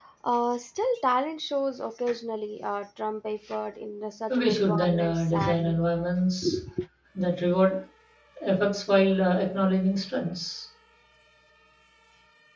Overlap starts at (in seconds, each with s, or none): 4.3 s